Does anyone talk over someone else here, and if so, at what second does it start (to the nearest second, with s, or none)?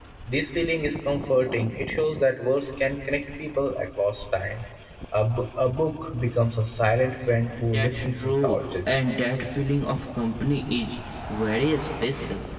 8 s